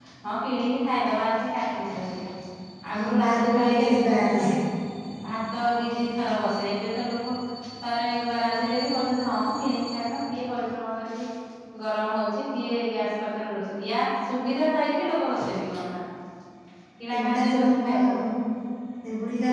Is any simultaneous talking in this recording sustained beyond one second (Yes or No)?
Yes